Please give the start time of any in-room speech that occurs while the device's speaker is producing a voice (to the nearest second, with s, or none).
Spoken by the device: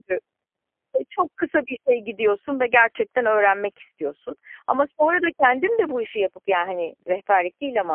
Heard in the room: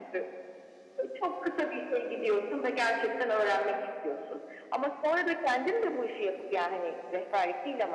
none